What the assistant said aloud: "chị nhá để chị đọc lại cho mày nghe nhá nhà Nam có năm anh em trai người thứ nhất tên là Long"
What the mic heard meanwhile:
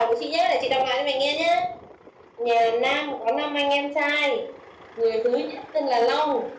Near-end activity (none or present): none